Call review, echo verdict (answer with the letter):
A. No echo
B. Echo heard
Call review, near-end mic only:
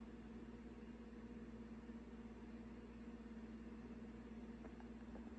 A